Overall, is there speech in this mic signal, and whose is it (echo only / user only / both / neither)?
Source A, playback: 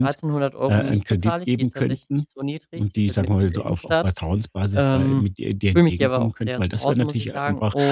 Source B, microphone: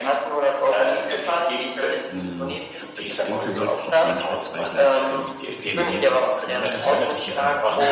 both